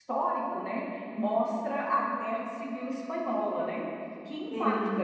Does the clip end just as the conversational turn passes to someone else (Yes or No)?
No